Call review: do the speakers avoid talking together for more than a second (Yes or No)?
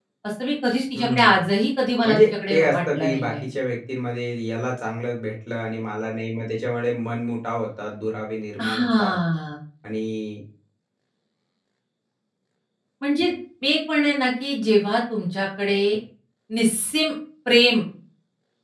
No